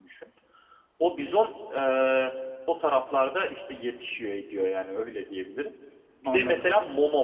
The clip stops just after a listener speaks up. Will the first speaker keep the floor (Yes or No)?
Yes